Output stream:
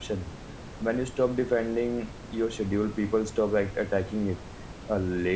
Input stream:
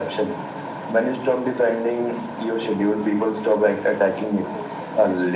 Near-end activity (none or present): present